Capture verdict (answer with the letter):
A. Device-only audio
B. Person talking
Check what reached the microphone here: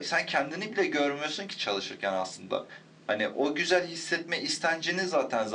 A